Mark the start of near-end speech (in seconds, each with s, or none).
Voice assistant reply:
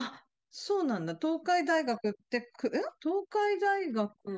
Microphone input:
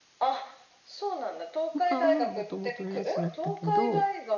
1.7 s